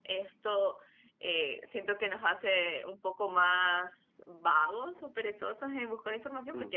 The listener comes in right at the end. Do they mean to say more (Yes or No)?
No